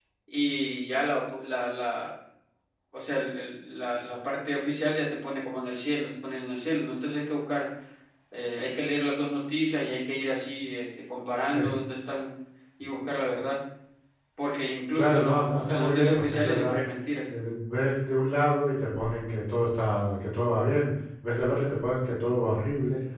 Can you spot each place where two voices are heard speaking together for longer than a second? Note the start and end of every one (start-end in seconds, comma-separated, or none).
14.9-16.8